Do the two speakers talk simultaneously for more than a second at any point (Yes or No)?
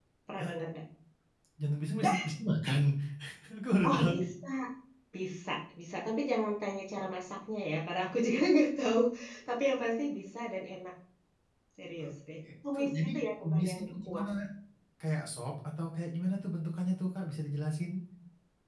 Yes